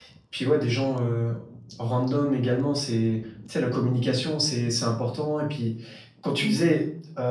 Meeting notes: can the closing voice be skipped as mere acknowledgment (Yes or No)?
Yes